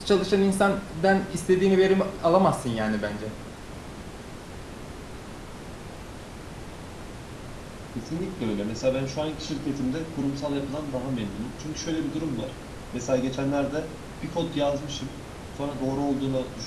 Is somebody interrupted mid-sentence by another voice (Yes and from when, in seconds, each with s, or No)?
No